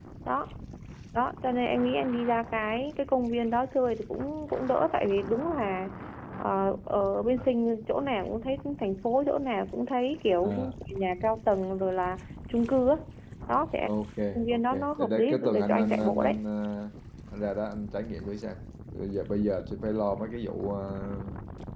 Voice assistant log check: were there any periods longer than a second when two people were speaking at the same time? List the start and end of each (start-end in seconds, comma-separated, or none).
14.5-16.4